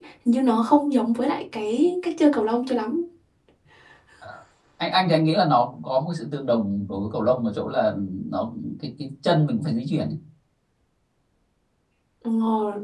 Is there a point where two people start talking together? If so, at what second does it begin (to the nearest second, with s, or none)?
none